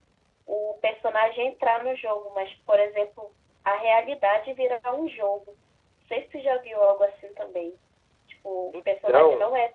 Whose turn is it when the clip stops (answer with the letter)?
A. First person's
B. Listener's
A